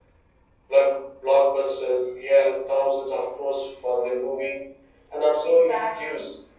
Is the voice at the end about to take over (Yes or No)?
No